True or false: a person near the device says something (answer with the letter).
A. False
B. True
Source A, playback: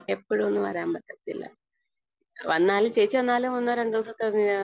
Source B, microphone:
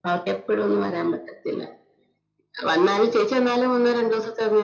A